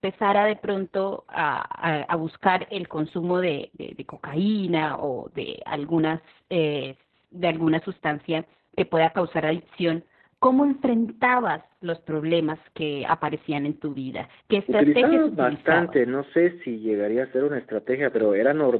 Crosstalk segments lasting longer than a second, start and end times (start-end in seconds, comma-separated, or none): 14.7-15.9